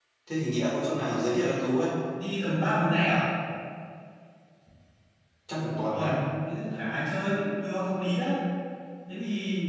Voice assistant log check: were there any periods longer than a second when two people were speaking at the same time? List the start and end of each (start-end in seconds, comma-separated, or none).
none